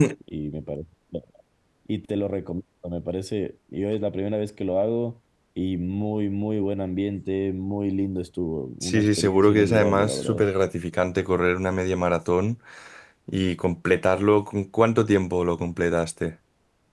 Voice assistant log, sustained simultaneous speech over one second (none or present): present